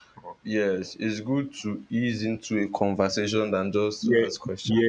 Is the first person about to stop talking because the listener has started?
Yes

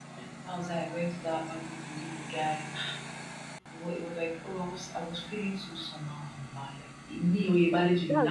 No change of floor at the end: No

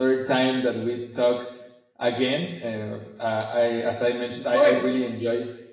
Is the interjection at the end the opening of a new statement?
No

